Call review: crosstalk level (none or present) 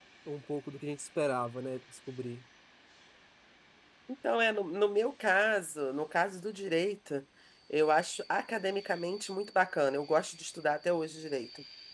none